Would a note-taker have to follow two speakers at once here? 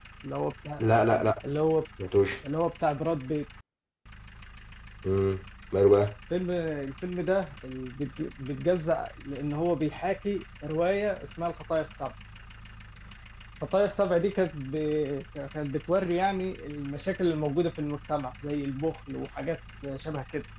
No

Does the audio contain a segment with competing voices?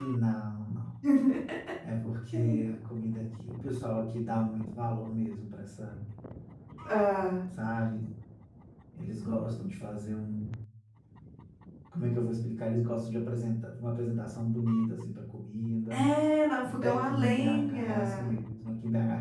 Yes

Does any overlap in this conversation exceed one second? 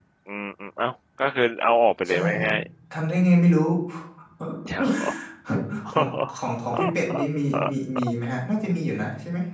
No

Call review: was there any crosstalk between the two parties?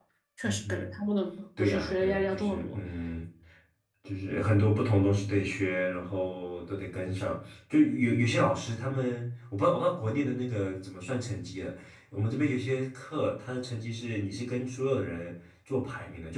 Yes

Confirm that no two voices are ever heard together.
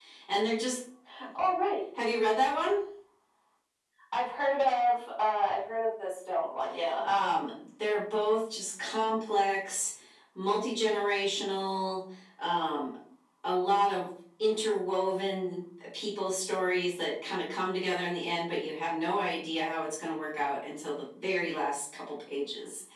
Yes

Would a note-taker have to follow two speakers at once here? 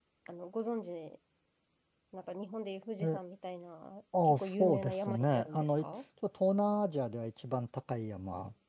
Yes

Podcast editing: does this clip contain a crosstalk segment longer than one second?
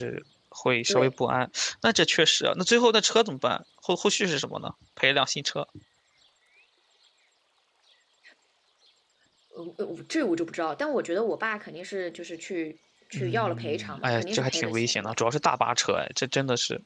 Yes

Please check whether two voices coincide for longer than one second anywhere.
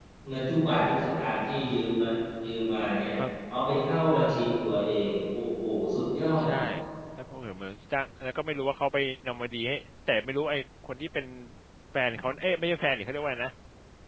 No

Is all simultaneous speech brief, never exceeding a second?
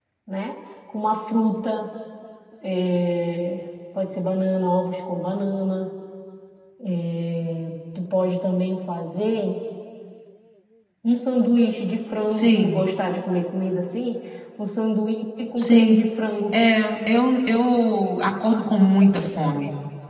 Yes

